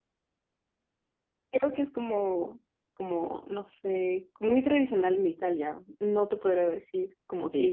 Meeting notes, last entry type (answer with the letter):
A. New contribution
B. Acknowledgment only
A